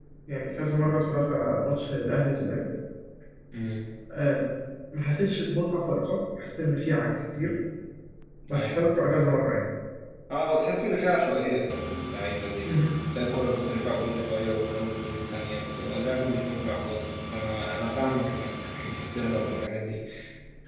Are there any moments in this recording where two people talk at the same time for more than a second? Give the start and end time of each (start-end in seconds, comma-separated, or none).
none